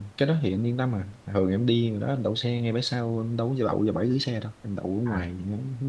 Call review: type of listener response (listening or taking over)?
listening